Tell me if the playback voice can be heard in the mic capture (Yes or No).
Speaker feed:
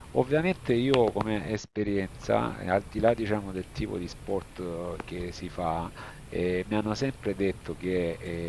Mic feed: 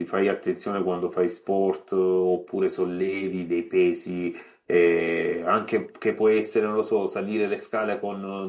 No